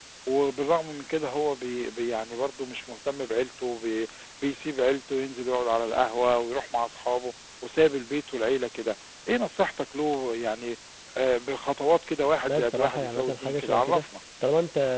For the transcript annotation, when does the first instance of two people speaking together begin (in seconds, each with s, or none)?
12.5 s